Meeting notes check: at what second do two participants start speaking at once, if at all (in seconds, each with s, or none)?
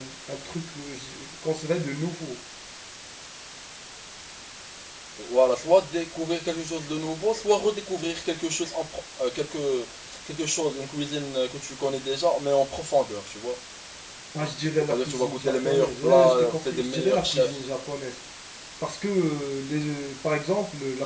14.9 s